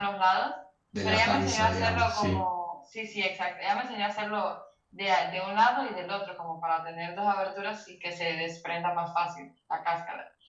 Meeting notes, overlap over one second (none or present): present